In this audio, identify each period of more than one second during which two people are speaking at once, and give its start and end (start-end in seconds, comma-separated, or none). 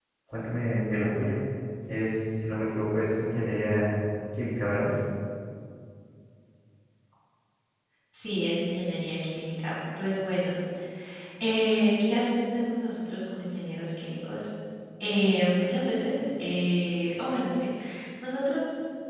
none